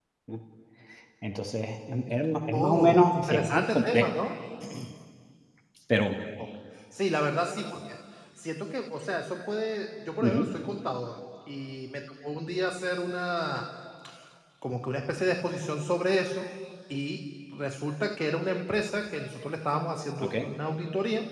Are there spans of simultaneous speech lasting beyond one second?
Yes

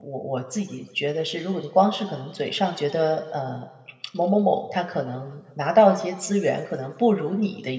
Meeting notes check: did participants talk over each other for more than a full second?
No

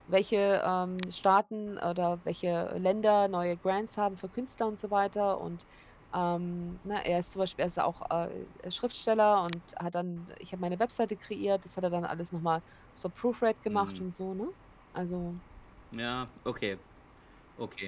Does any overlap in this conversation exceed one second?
No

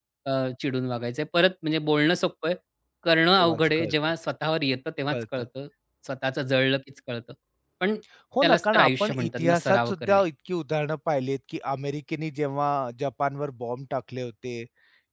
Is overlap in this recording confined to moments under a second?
No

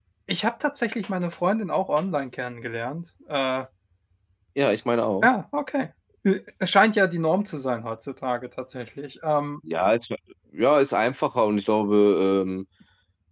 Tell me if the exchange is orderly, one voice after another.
Yes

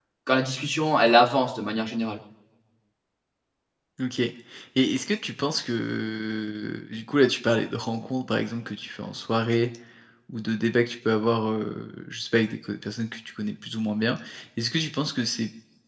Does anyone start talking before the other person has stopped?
No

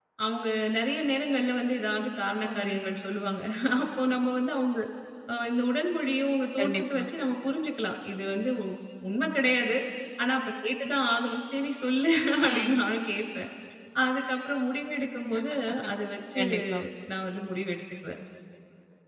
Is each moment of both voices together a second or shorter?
Yes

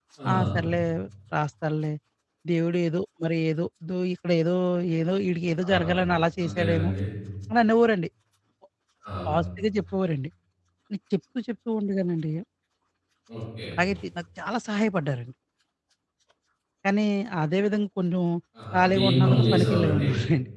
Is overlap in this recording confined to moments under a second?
No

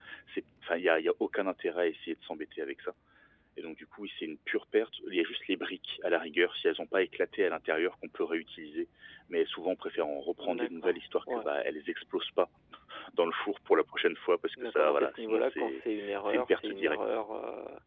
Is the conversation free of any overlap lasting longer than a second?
No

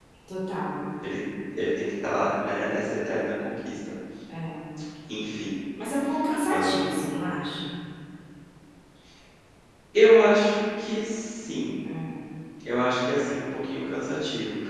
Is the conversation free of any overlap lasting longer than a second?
Yes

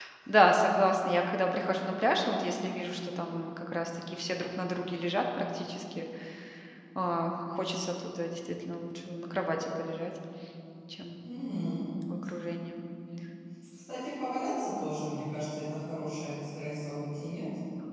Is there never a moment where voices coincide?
Yes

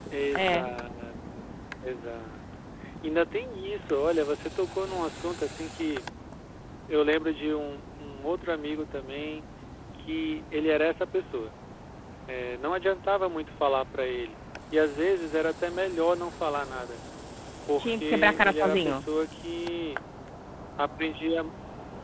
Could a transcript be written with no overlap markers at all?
No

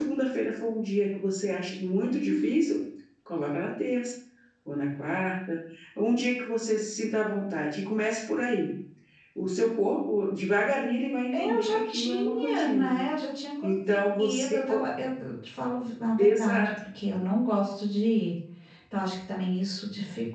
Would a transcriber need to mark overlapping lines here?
Yes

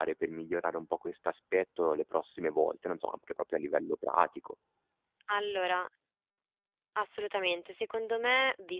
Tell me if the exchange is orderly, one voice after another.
Yes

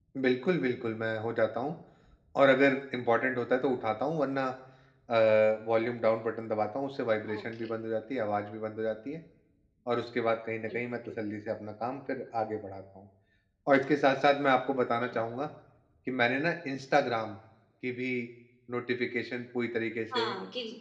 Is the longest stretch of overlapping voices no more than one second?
Yes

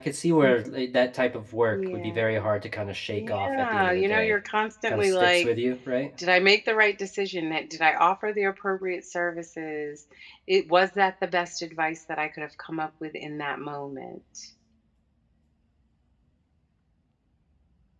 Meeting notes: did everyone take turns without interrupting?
No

